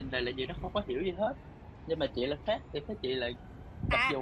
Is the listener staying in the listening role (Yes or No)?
No